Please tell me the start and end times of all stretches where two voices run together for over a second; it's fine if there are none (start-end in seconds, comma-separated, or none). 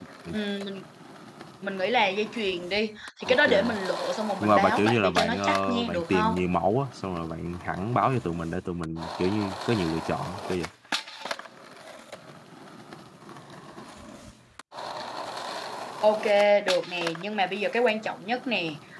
4.4-6.3